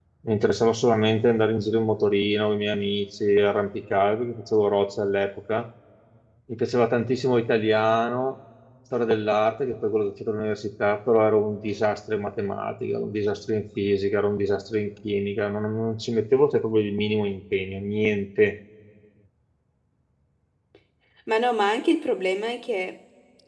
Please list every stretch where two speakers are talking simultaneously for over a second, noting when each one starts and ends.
none

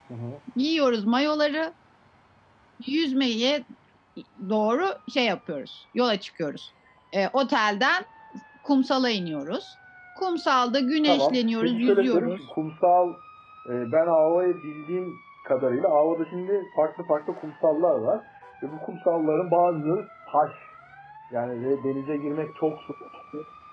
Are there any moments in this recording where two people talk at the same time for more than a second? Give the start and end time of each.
11.0-12.4

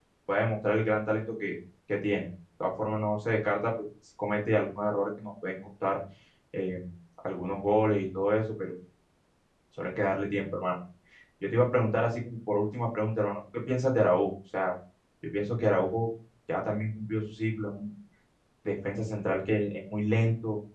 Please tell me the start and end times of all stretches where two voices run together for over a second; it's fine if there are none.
none

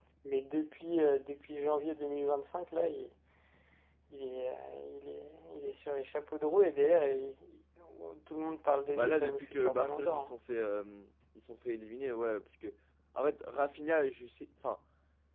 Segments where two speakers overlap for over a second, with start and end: 8.9-10.3

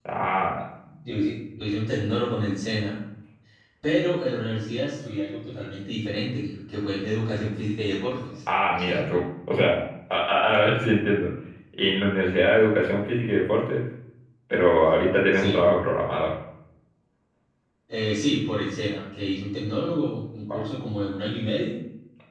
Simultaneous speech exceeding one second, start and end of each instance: none

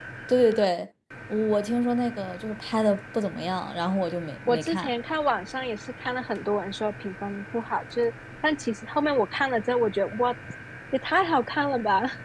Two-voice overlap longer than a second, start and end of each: none

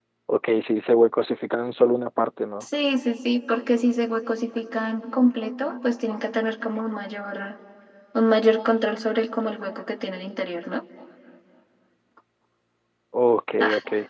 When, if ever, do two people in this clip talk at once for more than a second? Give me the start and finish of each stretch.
none

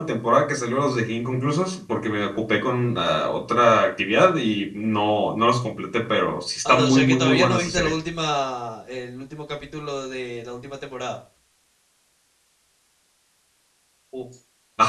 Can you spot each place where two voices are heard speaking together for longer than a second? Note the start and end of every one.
6.7-8.0

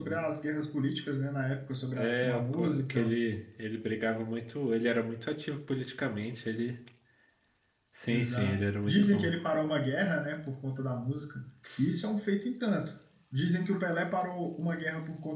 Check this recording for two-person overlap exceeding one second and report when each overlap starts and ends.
1.9-3.1, 8.1-9.3

